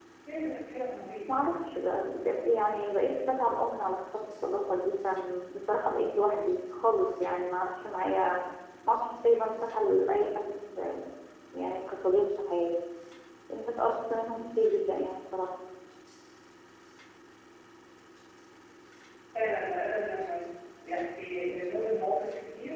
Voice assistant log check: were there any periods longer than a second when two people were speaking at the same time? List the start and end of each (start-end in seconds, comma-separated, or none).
none